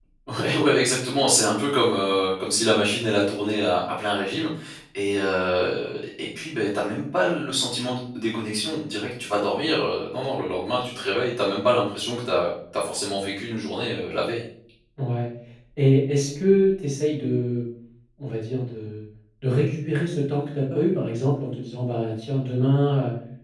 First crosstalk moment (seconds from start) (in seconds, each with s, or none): none